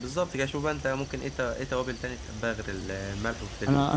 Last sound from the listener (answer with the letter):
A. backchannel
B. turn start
B